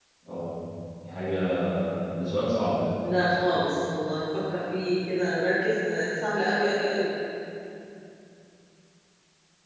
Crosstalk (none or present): none